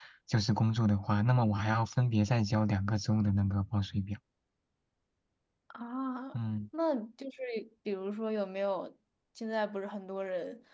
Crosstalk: none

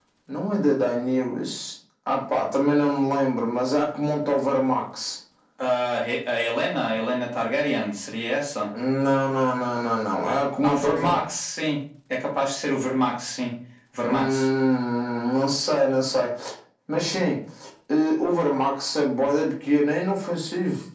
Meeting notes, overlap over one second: none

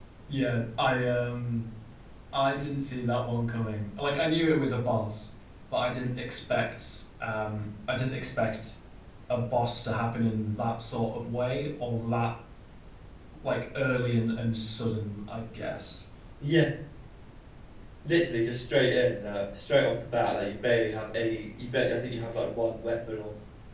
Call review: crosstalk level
none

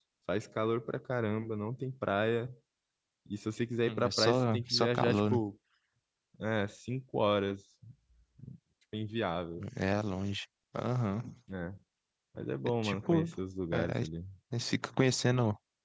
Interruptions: present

